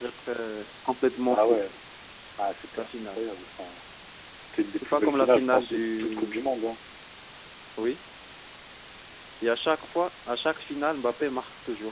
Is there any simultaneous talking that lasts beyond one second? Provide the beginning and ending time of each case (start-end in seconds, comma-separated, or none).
4.8-6.4